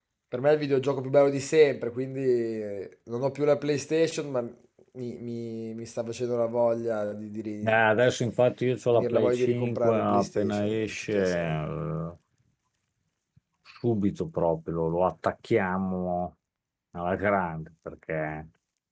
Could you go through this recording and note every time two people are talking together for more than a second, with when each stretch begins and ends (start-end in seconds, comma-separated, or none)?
8.9-11.6